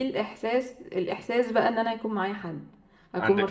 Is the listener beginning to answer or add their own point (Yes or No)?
No